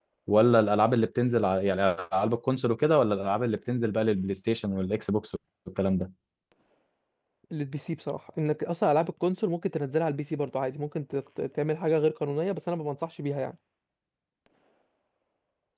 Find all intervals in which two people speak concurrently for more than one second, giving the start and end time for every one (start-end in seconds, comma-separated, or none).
none